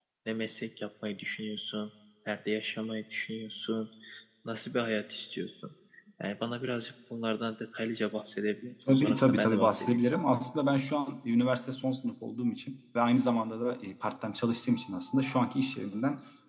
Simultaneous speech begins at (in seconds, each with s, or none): 8.9 s